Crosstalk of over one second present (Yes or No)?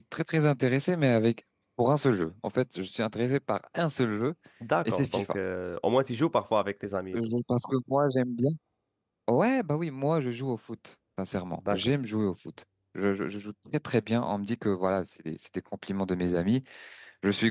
No